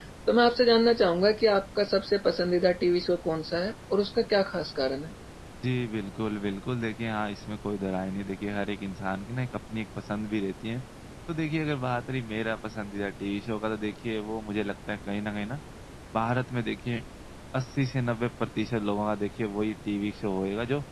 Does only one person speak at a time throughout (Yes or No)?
Yes